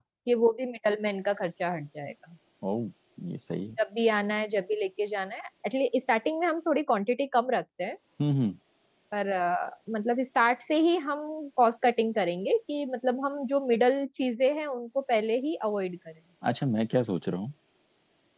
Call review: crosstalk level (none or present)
none